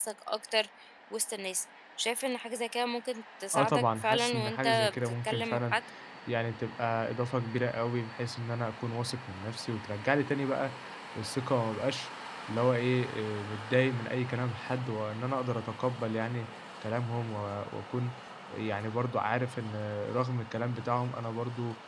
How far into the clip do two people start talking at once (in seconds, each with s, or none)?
3.5 s